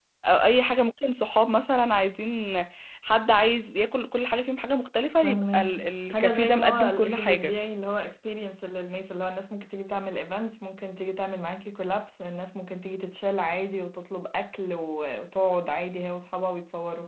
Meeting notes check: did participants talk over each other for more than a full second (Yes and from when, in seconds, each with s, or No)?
Yes, from 5.2 s